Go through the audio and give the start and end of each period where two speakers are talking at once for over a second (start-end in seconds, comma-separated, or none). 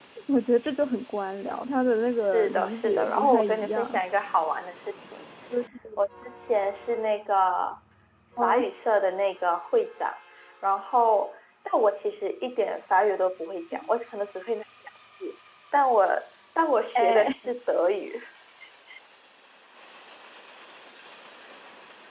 2.3-4.0